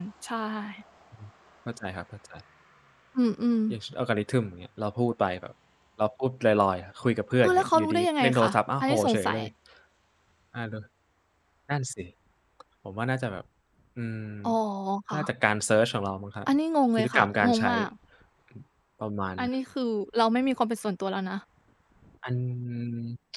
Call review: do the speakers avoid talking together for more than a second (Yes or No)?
No